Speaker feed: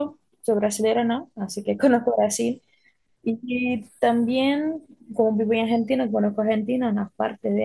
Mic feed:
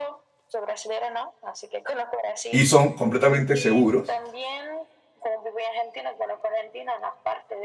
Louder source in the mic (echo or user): user